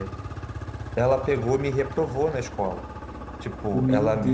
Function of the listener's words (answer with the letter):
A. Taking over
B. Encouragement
A